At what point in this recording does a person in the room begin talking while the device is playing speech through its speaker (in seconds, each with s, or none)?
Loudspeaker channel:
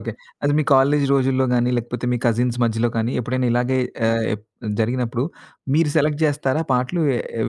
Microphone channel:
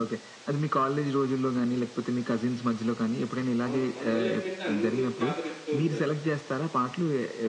3.6 s